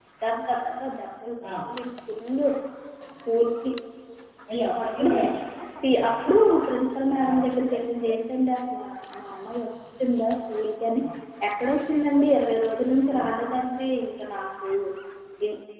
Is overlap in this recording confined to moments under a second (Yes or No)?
Yes